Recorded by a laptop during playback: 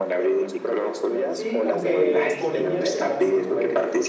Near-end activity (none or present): present